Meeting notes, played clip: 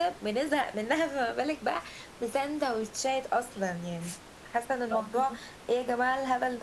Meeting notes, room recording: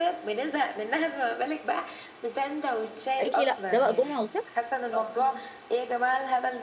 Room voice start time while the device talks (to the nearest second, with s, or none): 3 s